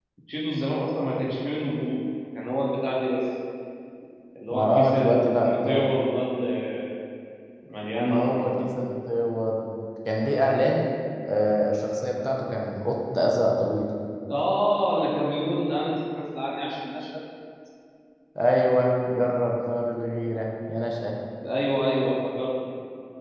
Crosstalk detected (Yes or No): Yes